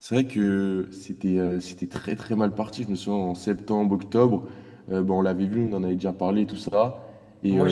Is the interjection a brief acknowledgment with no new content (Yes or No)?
No